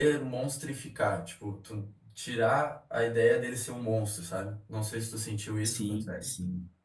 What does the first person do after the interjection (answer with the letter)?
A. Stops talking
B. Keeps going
A